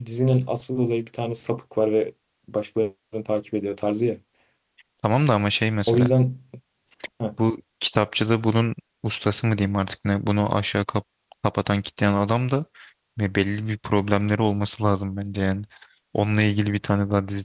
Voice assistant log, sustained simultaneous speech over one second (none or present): none